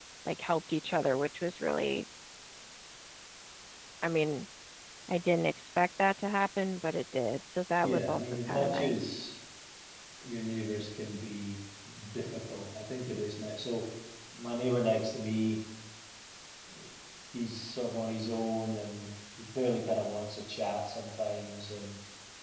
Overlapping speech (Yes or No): Yes